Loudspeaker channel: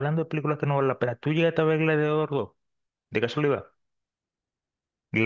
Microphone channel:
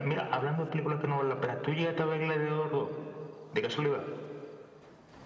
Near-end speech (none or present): none